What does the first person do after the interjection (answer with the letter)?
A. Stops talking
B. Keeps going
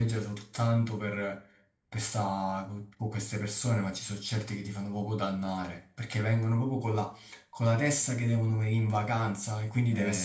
A